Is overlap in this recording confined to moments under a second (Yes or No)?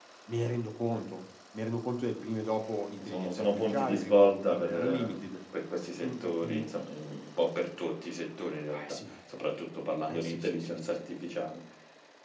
No